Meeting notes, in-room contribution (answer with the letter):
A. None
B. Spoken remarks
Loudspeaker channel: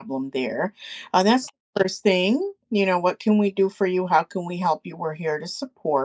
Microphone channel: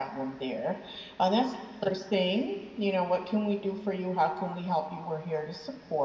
A